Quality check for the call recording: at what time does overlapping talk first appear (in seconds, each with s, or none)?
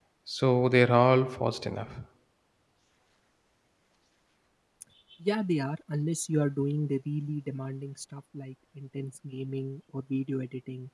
none